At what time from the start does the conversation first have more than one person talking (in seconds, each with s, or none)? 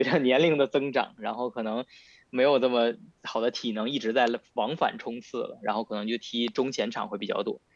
none